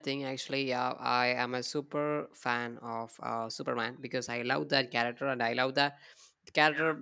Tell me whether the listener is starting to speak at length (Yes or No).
No